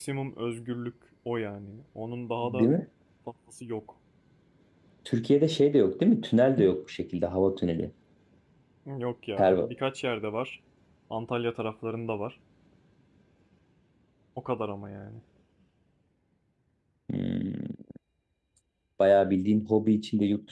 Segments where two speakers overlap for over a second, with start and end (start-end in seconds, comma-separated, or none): none